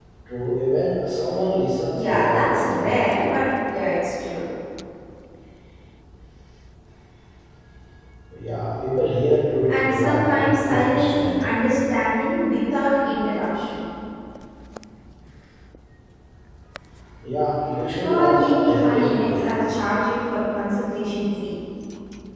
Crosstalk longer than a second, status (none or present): present